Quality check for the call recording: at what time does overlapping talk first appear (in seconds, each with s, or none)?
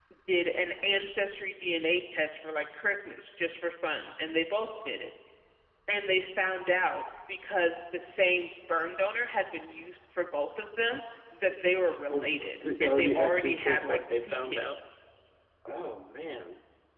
12.1 s